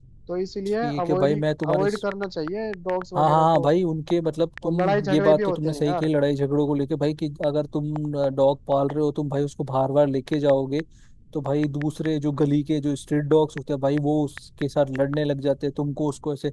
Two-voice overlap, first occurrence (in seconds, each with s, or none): 0.8 s